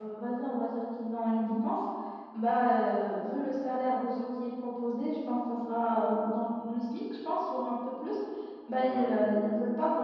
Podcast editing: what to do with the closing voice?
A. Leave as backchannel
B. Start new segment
A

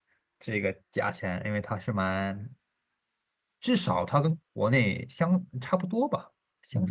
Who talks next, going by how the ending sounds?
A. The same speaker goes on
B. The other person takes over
B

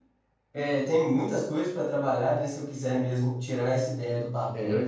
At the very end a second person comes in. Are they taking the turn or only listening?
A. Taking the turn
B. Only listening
B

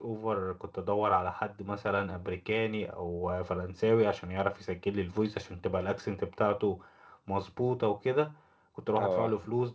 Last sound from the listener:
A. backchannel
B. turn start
A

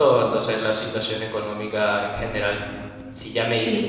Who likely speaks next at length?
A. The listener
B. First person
B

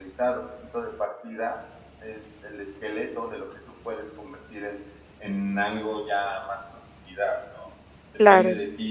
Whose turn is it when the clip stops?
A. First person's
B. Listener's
A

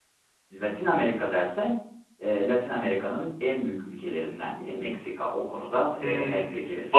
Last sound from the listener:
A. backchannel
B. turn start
B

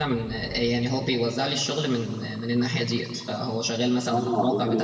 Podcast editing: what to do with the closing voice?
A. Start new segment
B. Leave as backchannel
A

